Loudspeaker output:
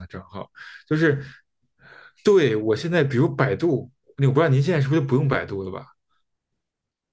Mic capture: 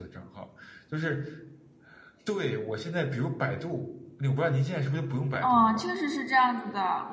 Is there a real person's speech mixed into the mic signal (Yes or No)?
Yes